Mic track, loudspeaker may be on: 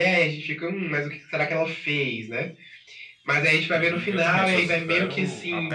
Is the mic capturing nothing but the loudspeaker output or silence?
No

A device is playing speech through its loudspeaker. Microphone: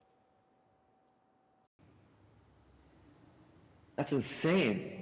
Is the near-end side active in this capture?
Yes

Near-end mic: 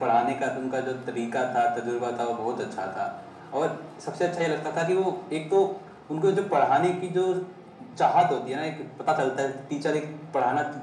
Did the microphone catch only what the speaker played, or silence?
Yes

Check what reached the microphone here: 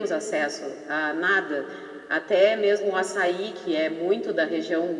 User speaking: No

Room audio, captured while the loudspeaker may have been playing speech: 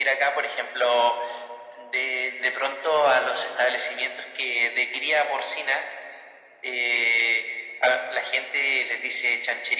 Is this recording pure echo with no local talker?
Yes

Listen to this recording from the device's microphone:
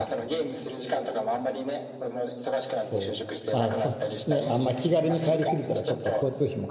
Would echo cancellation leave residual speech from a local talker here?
Yes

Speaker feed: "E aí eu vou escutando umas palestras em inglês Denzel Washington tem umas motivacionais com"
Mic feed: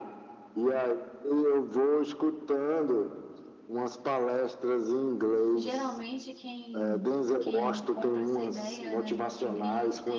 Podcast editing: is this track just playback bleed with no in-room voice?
No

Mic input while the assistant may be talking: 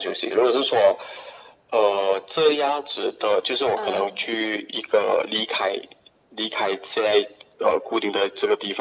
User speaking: Yes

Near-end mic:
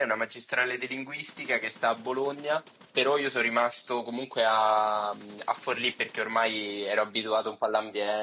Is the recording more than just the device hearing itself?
Yes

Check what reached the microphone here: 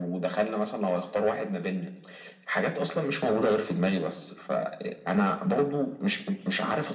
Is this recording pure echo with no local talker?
Yes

